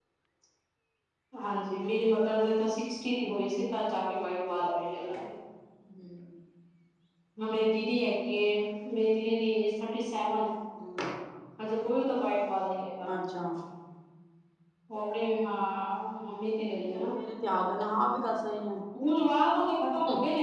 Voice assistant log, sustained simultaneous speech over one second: none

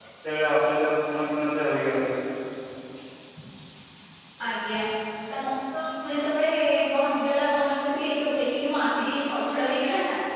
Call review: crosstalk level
none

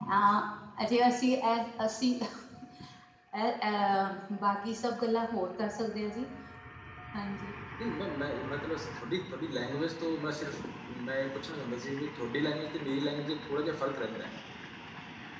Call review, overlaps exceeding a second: none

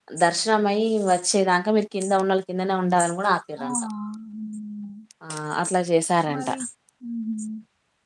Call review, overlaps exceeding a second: none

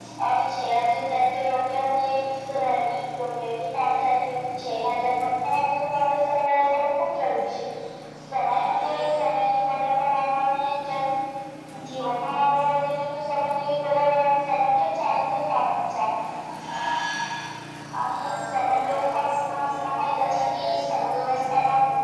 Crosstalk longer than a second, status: present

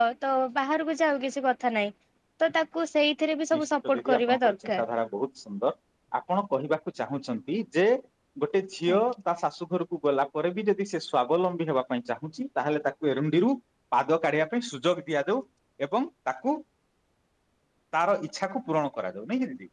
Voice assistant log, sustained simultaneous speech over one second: present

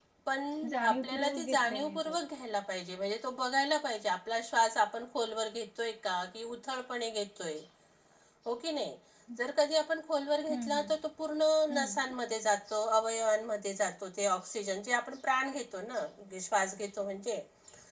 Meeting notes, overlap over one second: present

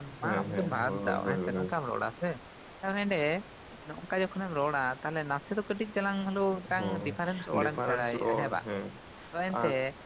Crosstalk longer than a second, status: present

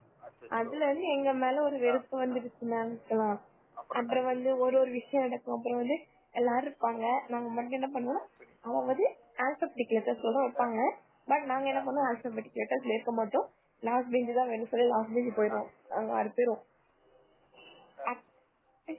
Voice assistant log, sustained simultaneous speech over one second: none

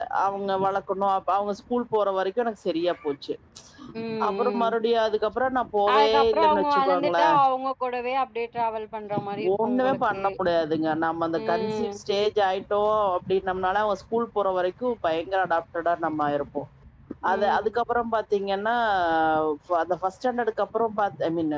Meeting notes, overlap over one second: present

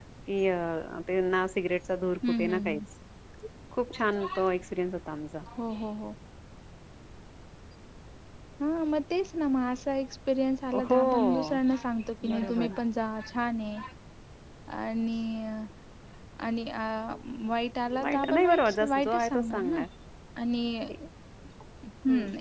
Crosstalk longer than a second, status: present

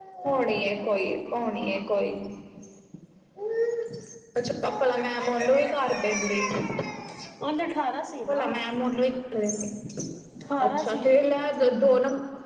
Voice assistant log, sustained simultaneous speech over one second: none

